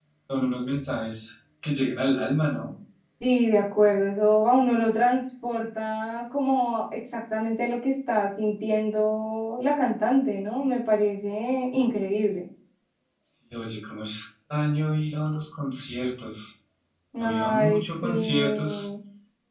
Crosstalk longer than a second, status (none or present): present